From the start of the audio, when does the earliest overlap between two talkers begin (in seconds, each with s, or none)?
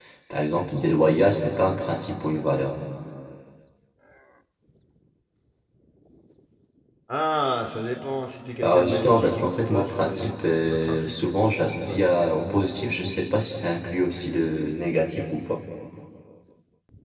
8.6 s